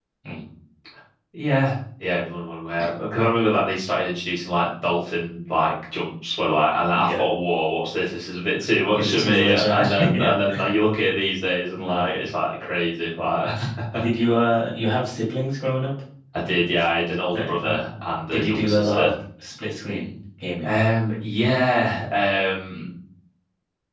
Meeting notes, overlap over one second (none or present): present